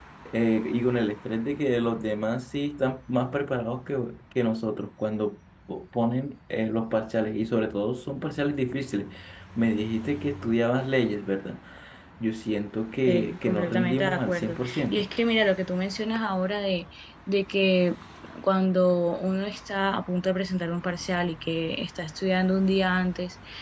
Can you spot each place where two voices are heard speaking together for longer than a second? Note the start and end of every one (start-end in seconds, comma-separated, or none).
13.1-15.1